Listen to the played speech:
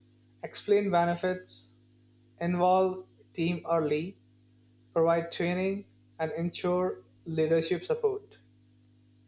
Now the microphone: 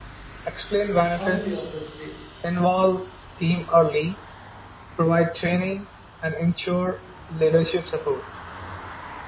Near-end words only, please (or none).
How will you approach this?